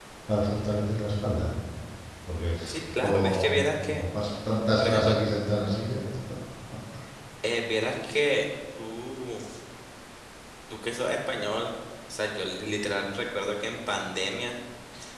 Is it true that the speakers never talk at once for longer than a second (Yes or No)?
No